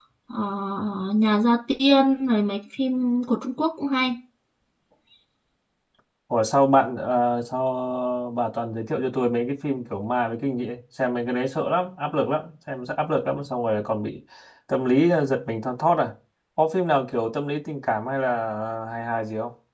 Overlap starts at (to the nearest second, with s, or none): none